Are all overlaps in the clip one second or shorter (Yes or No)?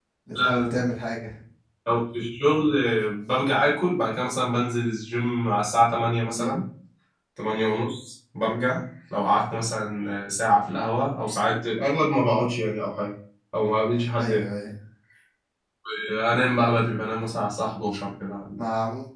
Yes